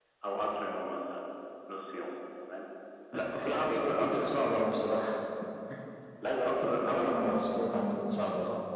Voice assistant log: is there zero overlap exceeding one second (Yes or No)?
No